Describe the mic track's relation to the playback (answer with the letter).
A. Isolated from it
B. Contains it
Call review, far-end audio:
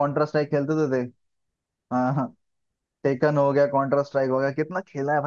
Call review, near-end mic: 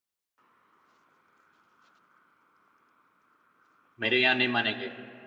A